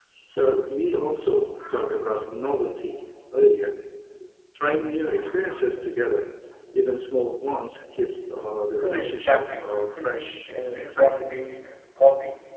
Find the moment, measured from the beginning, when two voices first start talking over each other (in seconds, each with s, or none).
8.8 s